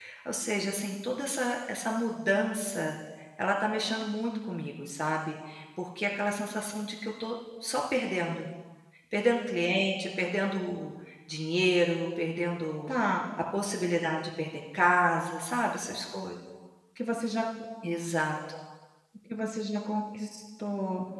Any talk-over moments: No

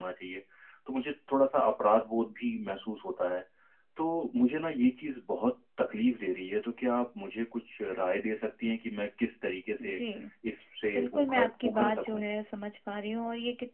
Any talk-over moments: Yes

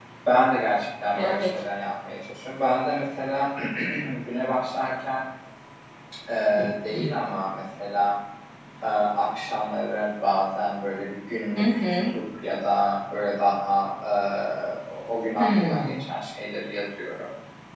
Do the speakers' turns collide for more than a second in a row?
No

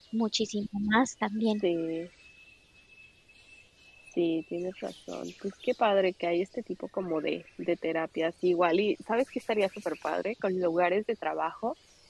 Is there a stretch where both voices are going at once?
No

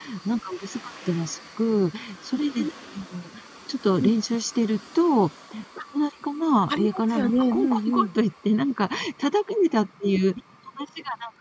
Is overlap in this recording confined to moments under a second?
No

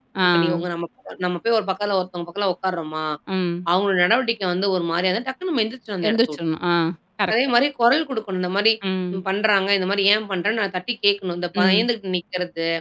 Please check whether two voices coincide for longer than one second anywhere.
No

